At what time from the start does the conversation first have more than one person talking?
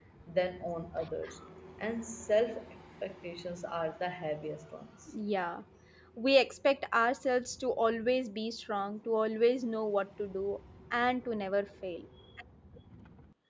none

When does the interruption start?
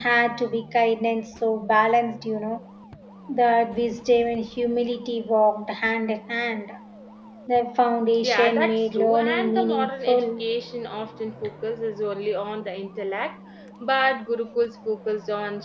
8.2 s

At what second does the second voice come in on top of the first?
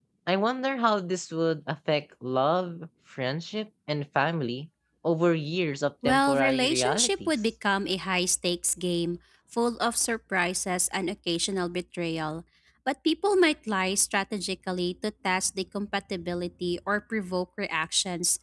6.0 s

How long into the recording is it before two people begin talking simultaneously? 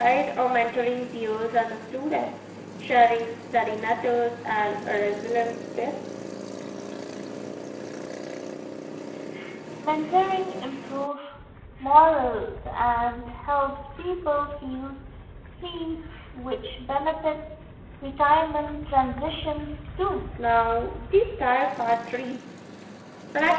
none

